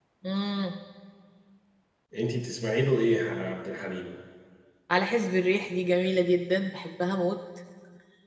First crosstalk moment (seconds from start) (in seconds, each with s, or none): none